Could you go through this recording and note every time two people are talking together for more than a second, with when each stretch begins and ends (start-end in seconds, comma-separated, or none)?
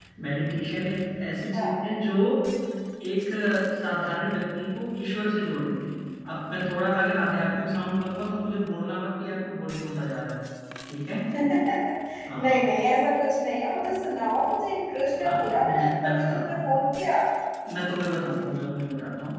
15.2-16.8